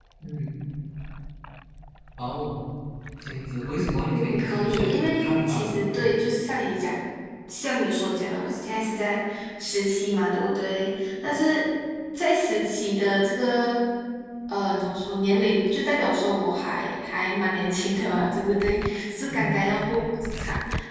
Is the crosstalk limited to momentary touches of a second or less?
No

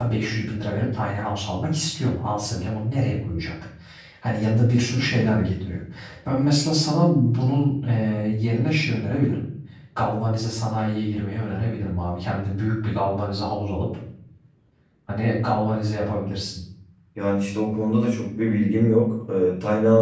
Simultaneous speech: No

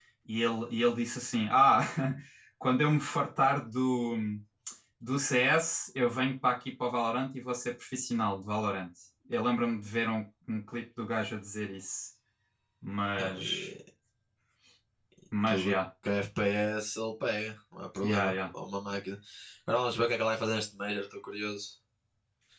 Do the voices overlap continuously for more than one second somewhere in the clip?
No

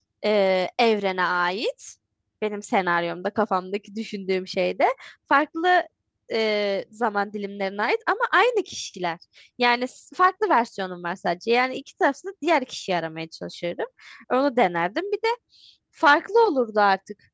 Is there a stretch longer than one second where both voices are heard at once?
No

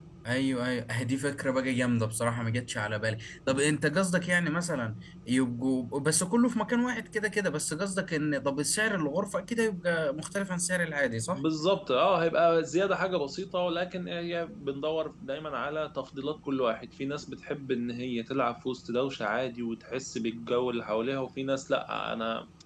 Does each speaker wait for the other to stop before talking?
Yes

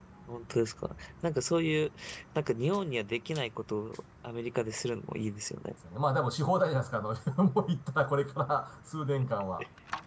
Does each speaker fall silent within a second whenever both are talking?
Yes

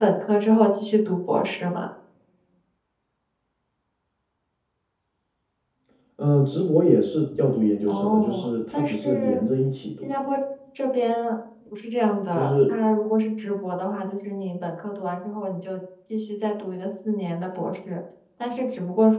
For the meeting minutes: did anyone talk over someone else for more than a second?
Yes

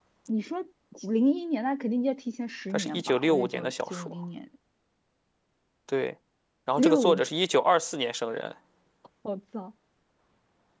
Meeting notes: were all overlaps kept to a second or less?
No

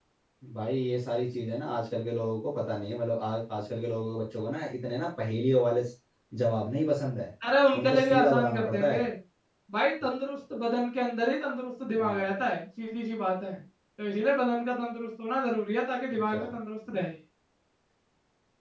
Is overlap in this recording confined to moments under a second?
No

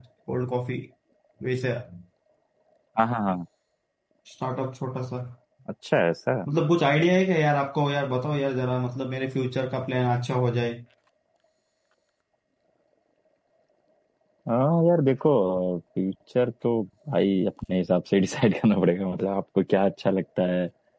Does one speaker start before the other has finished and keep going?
No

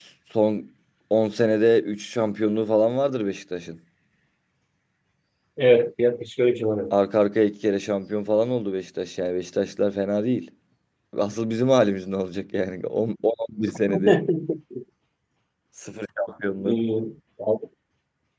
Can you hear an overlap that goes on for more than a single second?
No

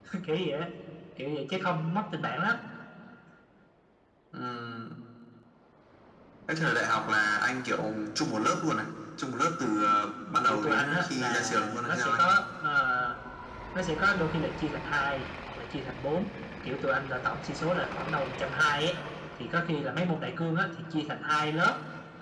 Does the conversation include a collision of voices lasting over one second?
Yes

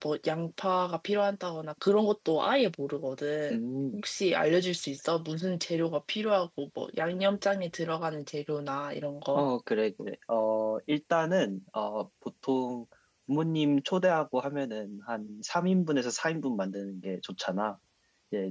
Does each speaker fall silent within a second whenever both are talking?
Yes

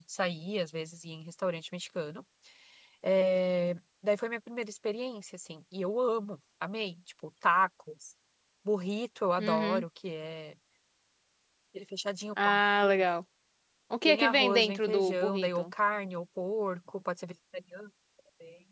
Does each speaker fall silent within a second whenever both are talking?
No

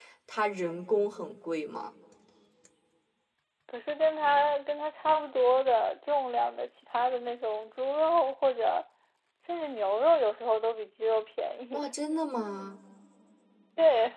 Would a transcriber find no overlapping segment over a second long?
Yes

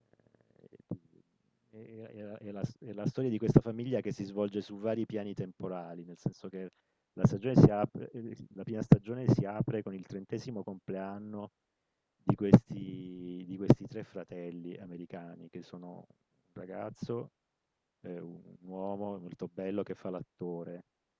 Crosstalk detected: No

